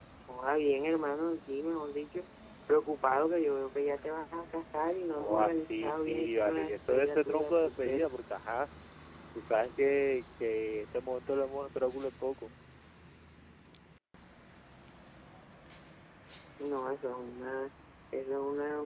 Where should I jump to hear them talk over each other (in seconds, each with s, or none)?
5.1 s